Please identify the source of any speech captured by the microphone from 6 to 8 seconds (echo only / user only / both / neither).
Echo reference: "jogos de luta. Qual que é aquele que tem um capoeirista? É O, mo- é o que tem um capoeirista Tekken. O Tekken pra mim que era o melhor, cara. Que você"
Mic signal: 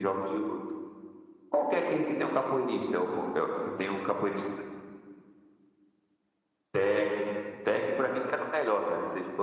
echo only